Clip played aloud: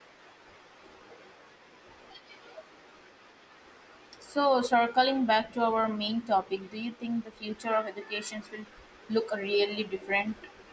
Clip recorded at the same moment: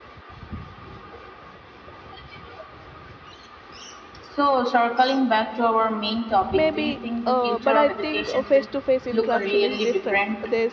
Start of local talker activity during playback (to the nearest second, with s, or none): 7 s